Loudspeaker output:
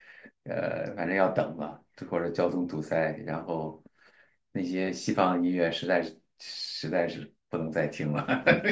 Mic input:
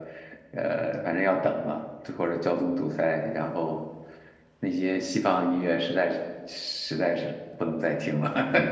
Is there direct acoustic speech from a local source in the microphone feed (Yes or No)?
No